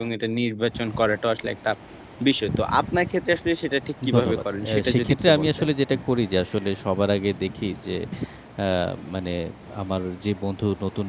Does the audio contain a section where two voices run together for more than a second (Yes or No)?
Yes